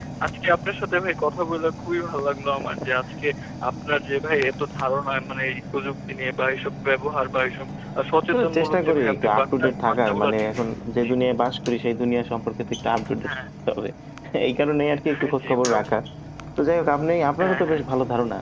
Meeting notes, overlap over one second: present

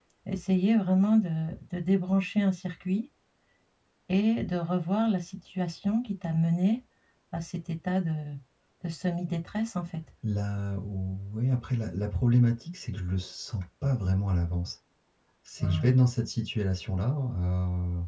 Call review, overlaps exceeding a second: none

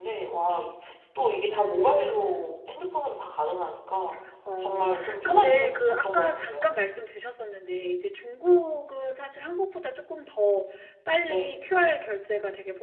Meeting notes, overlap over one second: present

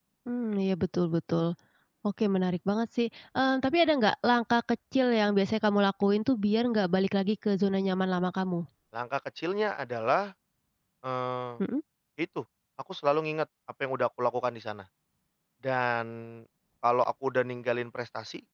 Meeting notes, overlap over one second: none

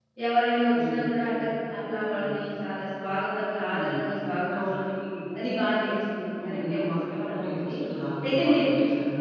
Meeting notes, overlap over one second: present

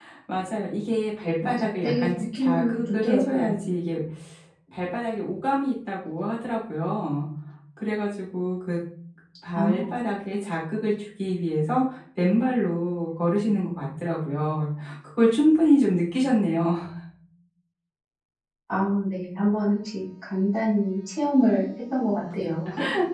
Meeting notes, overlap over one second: present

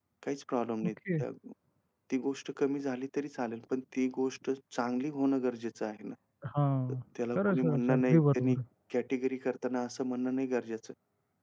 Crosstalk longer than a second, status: present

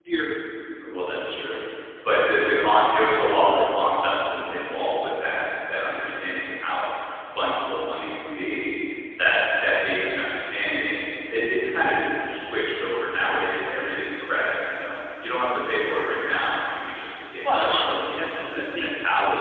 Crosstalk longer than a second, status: present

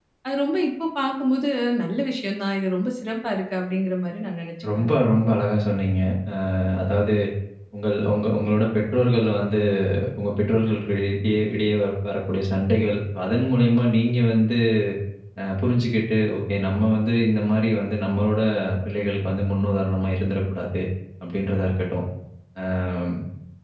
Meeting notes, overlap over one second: none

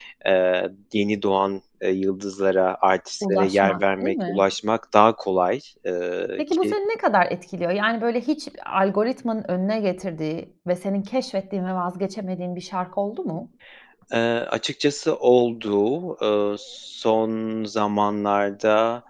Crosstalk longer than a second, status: present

